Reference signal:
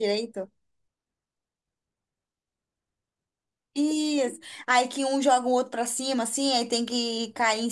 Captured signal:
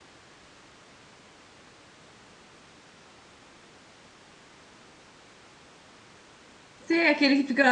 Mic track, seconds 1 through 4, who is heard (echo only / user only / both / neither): neither